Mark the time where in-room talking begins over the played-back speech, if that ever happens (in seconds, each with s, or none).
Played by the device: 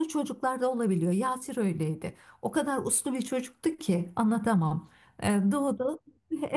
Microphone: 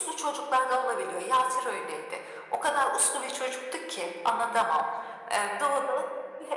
none